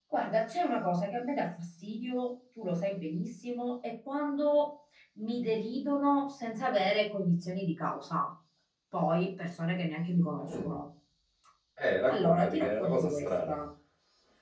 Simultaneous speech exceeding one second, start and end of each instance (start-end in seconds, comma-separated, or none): 12.1-13.6